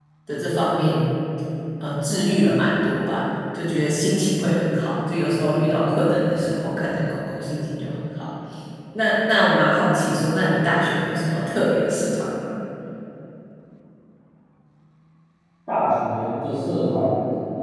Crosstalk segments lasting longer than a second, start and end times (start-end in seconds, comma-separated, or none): none